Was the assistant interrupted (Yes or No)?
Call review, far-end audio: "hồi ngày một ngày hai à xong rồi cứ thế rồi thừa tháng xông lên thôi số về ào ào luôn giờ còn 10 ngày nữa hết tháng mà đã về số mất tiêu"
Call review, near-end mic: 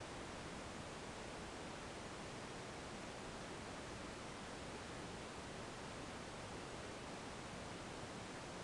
No